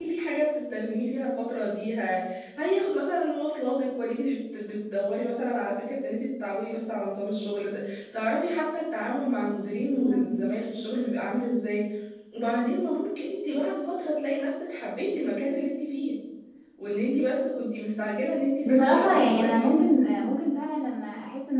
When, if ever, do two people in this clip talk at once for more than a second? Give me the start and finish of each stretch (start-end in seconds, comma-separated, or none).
18.6-19.8